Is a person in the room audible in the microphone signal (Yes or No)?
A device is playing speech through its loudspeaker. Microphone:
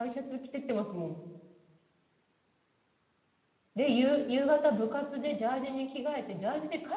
Yes